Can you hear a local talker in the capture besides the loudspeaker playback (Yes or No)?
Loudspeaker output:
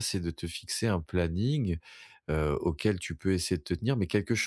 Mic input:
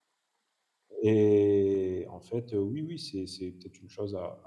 Yes